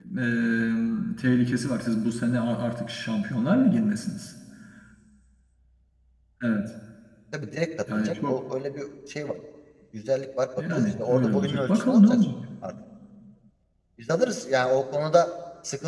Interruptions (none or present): present